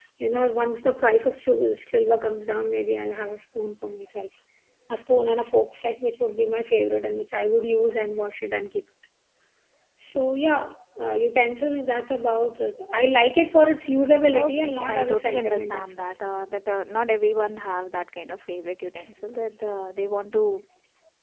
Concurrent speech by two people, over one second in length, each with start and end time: 14.3-16.1

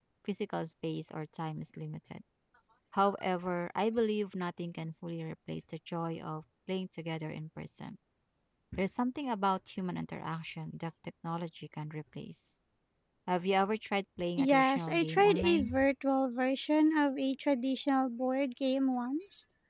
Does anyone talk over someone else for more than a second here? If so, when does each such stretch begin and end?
14.4-15.8

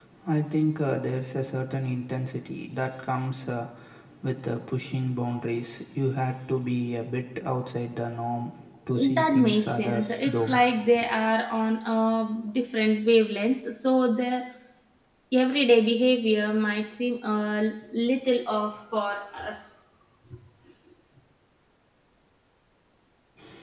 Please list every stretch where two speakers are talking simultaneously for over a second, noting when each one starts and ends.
9.2-10.6

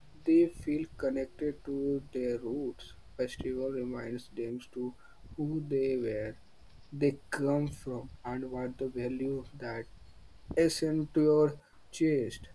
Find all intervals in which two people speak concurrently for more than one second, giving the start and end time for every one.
none

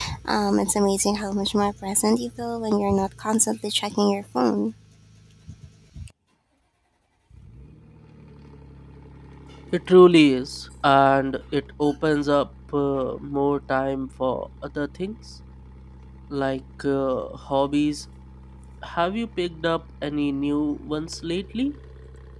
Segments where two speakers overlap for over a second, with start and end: none

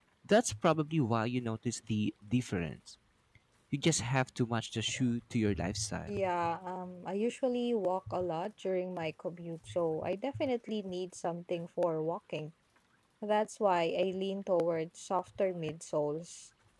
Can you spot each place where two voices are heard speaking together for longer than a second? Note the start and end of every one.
none

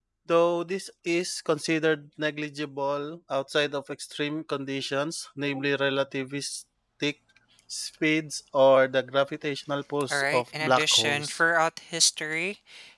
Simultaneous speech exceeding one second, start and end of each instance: 10.1-11.4

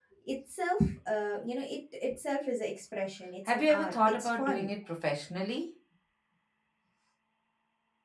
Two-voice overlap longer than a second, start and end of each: 3.5-4.7

